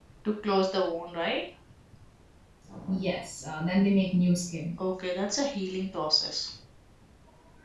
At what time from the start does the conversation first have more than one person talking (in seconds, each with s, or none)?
none